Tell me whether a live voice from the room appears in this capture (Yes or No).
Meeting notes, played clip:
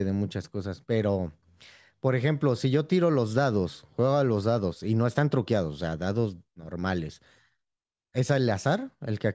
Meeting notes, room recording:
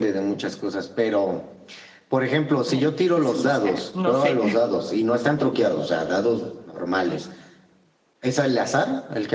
Yes